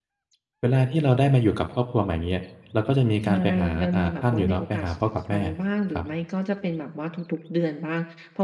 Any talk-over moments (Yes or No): Yes